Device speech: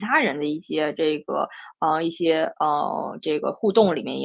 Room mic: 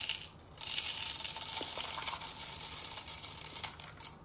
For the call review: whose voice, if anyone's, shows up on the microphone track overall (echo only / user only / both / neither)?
neither